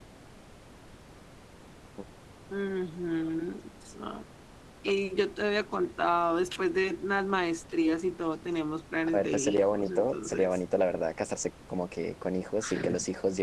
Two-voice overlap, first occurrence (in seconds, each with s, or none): 9.1 s